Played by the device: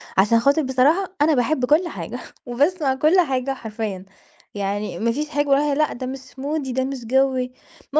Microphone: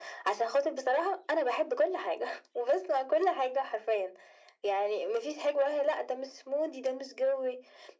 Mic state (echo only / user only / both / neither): echo only